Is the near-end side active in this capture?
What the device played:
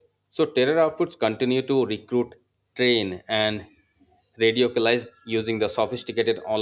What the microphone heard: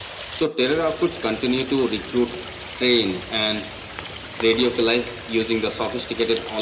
No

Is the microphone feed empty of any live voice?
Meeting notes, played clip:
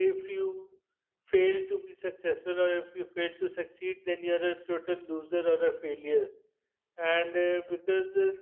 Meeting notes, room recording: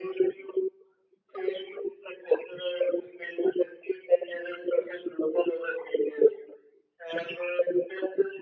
Yes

